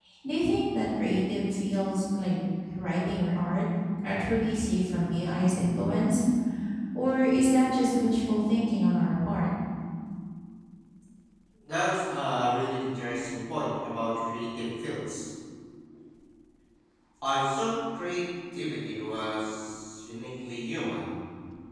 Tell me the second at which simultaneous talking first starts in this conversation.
none

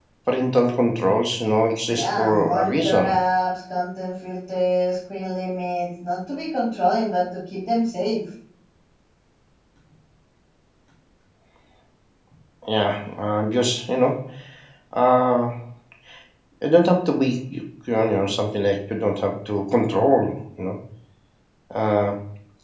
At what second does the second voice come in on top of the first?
1.9 s

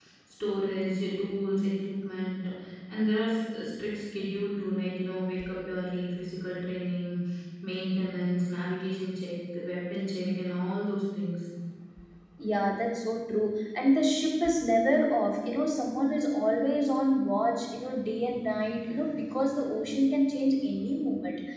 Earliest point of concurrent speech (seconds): none

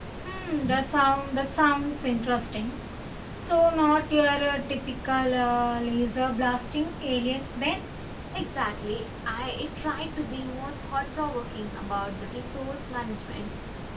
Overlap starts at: none

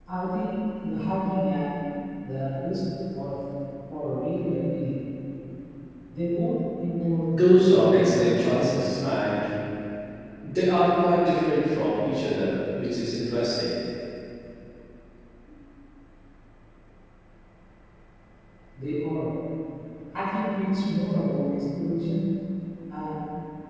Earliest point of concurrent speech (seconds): 7.7 s

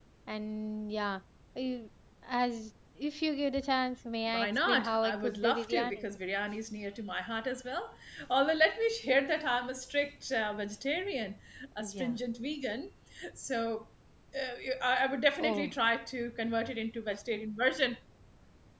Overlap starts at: 4.3 s

